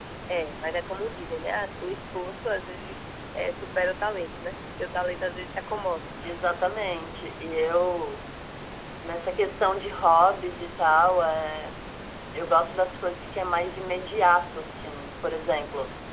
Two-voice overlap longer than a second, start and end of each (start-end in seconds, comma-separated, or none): none